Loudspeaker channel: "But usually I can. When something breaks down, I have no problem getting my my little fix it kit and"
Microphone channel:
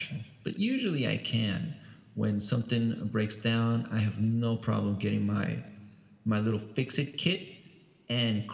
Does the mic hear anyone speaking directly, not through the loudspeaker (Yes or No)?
No